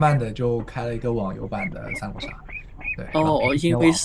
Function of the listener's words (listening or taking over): taking over